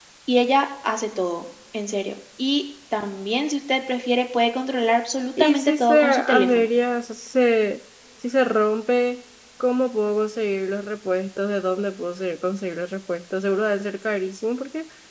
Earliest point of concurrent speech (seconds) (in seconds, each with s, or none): 5.4 s